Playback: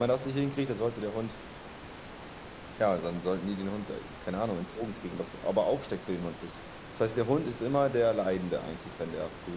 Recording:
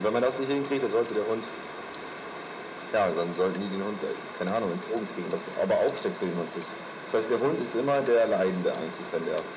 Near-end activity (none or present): none